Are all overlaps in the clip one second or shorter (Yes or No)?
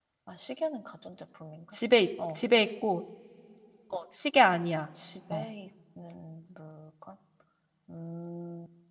Yes